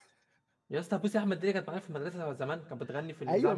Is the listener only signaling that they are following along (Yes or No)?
No